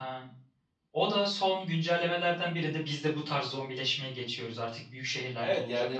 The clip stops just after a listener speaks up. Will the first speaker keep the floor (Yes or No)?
No